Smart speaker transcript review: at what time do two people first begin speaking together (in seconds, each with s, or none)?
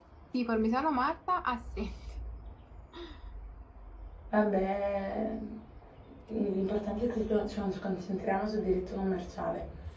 none